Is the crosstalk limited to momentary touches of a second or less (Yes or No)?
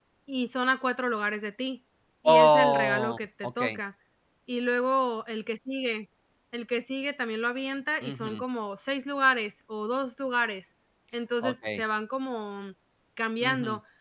No